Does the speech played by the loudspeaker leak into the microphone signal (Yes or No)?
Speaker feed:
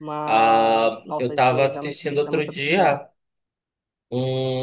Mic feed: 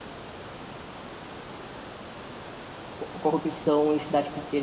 No